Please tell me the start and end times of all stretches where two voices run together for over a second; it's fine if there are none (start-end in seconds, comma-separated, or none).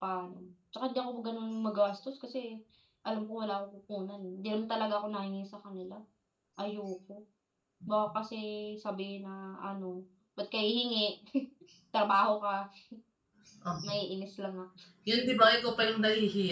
none